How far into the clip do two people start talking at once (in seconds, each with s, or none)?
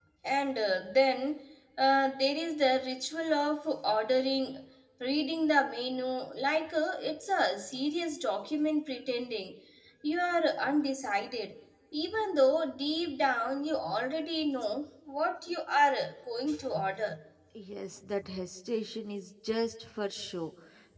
none